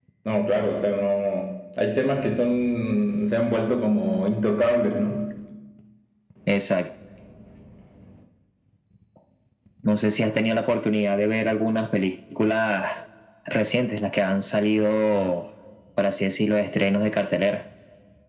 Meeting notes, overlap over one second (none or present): none